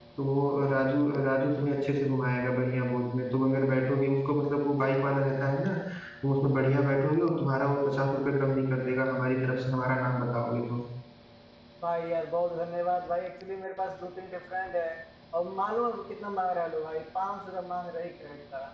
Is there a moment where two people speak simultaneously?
No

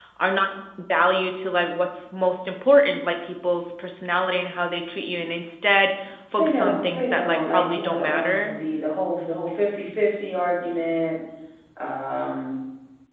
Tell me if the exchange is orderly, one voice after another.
No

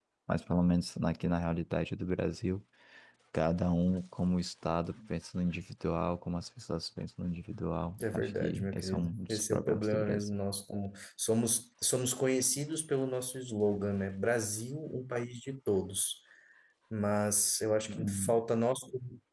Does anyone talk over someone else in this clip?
Yes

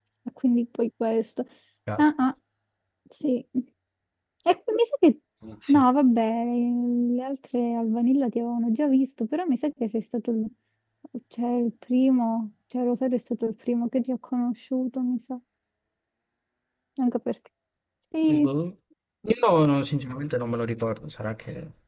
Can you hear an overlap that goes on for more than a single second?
No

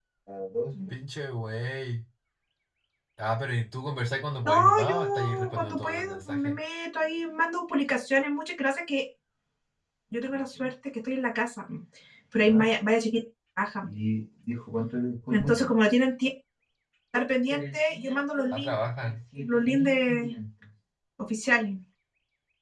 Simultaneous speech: Yes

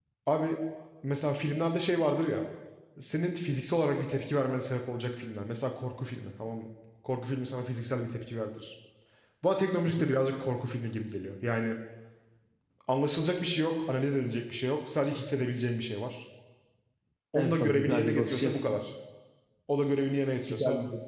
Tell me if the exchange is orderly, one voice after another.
No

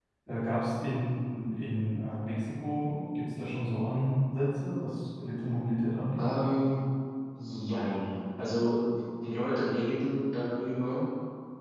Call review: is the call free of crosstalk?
Yes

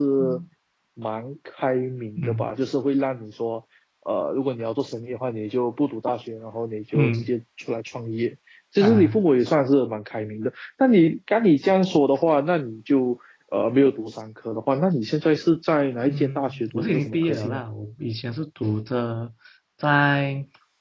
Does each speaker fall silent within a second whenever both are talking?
No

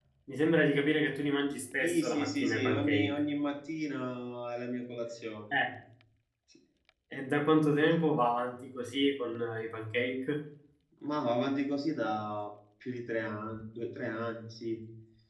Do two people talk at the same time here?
Yes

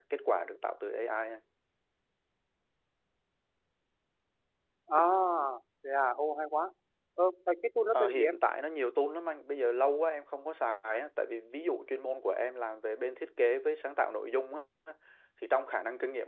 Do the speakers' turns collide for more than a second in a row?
No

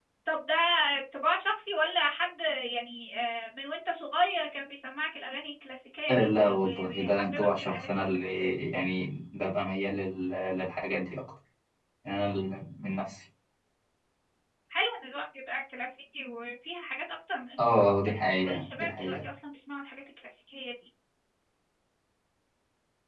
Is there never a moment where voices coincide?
No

